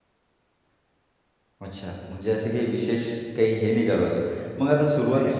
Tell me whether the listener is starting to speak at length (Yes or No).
No